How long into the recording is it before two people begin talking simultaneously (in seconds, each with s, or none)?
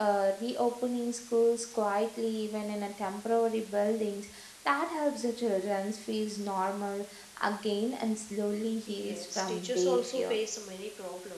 8.9 s